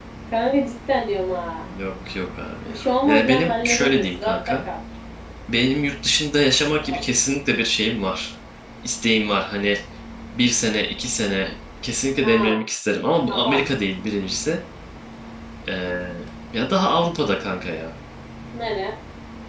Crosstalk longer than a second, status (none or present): present